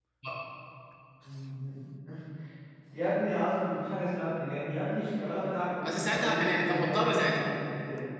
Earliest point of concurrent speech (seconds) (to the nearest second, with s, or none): 6 s